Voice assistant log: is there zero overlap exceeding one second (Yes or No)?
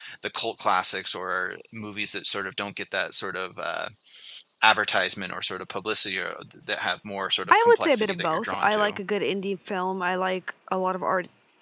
No